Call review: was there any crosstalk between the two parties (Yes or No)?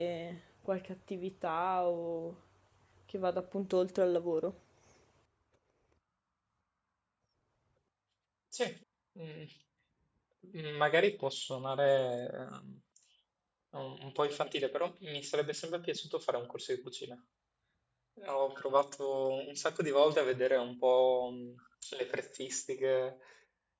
No